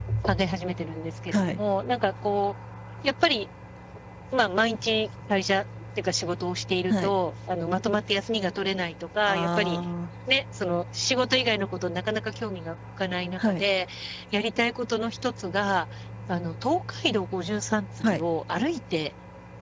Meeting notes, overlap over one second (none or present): none